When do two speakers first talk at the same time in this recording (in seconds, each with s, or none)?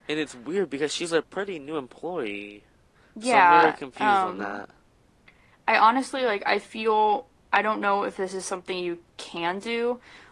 3.2 s